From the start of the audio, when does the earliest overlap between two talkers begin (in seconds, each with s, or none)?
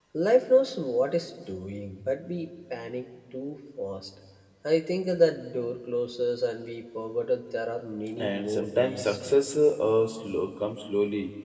8.2 s